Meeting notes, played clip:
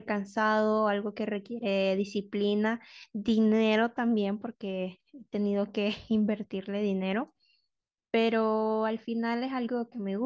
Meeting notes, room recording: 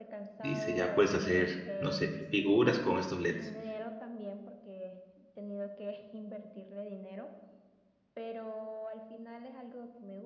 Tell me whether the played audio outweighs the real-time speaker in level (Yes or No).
No